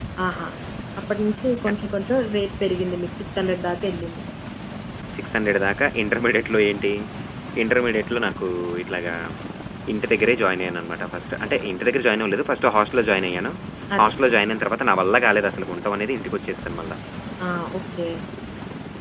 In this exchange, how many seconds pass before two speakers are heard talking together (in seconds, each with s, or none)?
none